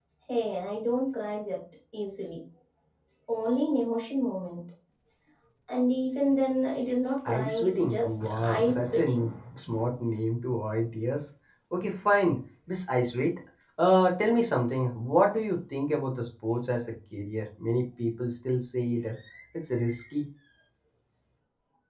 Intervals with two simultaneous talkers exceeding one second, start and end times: 7.2-9.3

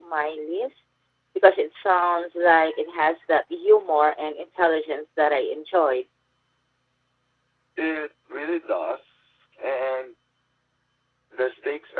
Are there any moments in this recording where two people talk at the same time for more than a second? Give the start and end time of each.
none

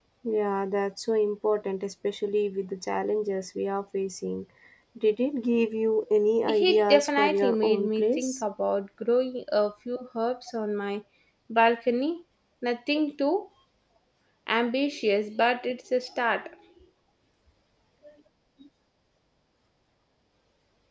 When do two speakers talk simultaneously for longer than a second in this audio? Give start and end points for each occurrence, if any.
6.5-8.4

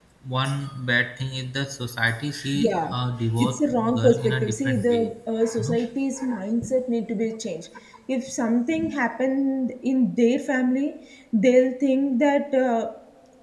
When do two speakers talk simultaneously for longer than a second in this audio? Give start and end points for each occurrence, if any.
3.4-5.0

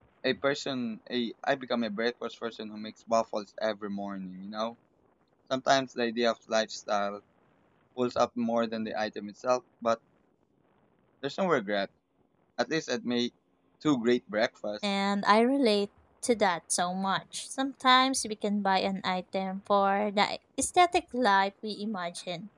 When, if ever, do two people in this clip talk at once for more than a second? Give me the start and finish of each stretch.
none

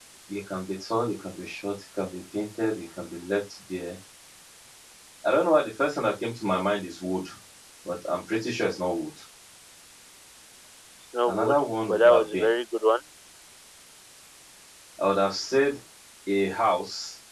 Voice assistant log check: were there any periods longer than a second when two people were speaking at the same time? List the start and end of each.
11.3-12.5

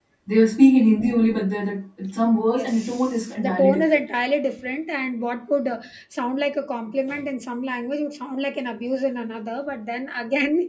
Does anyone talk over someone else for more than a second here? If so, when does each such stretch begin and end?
2.5-4.0

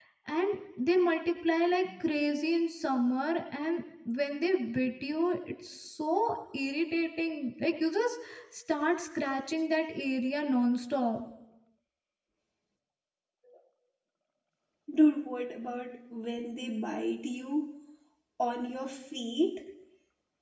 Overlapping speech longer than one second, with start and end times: none

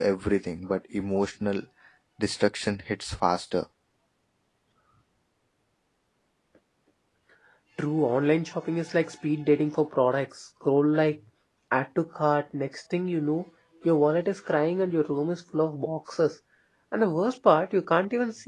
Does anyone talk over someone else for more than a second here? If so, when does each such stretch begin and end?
none

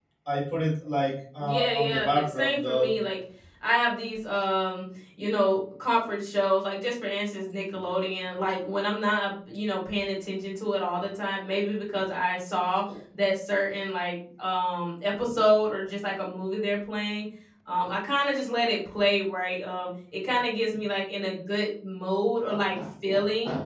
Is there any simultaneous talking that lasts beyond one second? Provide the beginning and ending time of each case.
1.4-2.9

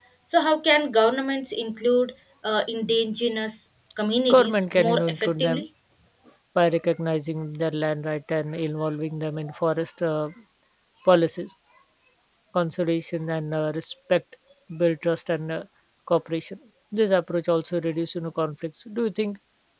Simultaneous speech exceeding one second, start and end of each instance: 4.2-5.7

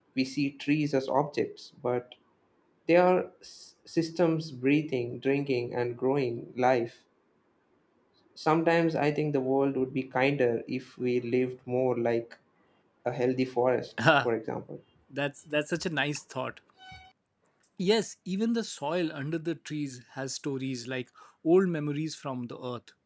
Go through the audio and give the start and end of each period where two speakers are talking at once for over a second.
none

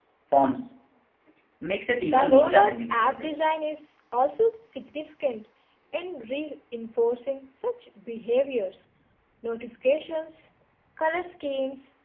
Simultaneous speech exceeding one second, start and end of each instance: 2.0-3.4

